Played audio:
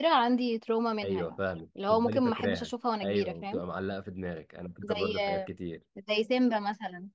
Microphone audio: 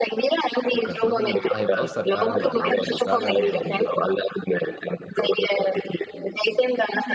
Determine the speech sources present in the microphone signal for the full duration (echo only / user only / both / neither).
both